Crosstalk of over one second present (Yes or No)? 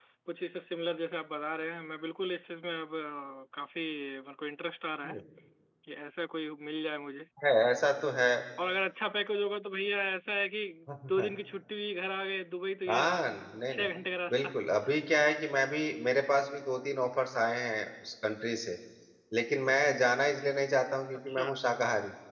No